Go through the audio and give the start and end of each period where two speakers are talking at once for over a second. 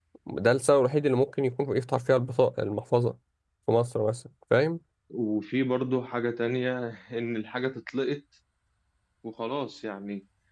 none

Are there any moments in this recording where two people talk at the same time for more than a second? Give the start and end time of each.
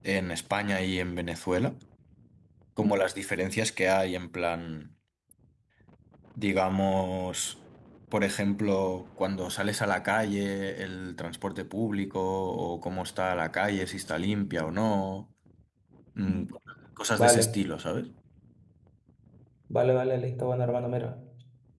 none

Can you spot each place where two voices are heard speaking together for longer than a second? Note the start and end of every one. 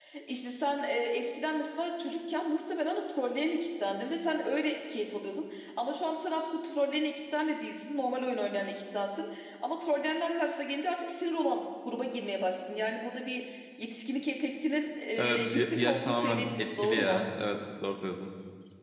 15.2-17.2

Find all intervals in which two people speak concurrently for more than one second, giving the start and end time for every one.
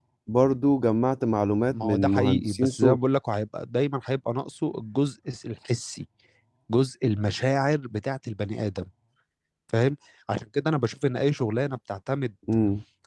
1.7-3.0

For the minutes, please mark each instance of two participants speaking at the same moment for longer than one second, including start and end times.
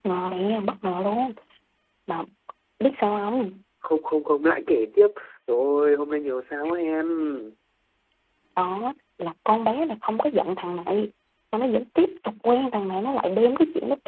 none

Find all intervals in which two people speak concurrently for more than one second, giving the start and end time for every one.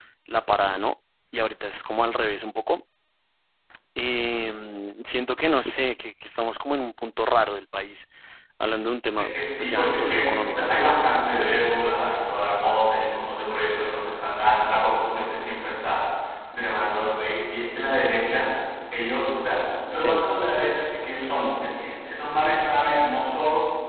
9.2-11.8

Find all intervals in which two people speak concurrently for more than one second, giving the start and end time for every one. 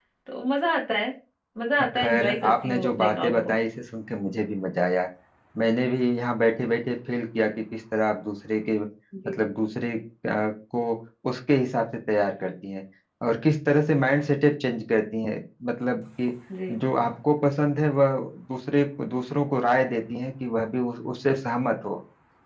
1.8-3.6

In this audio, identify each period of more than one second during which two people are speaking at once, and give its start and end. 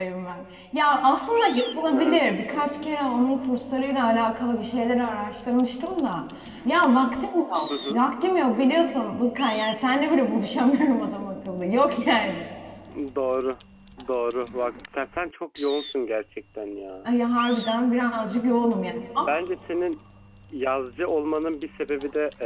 none

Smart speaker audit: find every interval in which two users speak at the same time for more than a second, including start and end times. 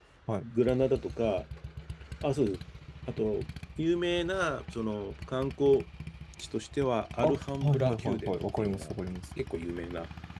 7.2-8.9

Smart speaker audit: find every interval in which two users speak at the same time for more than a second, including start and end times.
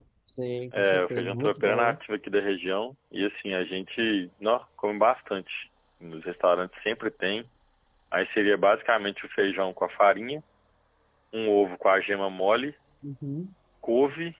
0.7-2.0

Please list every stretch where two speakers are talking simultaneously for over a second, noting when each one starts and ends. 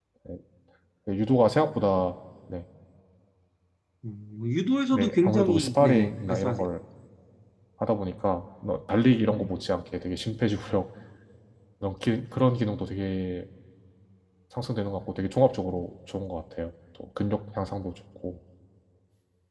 4.9-6.7

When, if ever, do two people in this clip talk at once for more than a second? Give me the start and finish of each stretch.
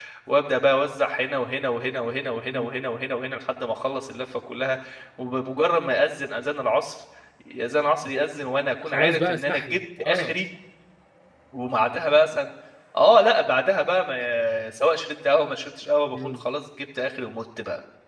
8.8-10.4

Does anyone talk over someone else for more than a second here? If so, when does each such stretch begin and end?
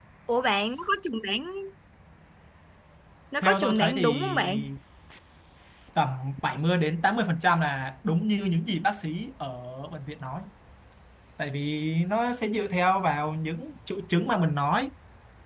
3.4-4.7

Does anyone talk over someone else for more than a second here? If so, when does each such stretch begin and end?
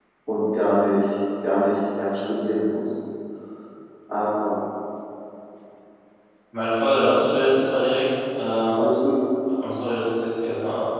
none

